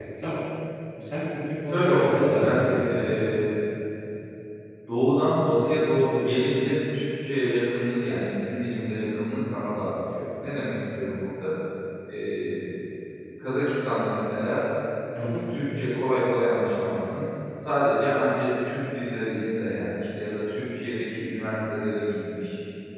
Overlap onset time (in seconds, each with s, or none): 1.7 s